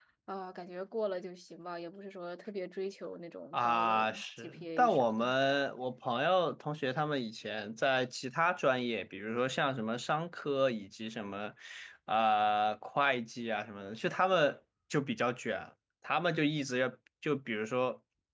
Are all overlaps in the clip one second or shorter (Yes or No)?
No